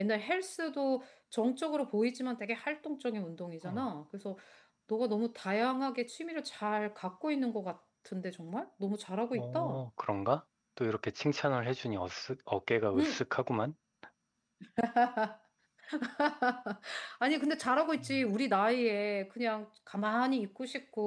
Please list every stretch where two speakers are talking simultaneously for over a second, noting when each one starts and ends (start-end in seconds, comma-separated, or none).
none